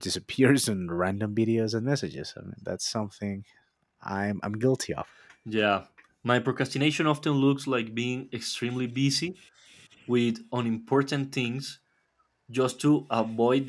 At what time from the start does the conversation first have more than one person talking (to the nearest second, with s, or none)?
none